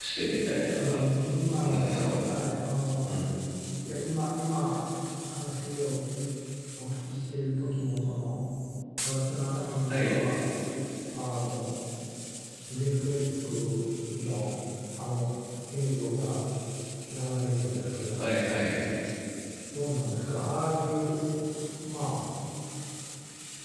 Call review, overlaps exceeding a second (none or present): none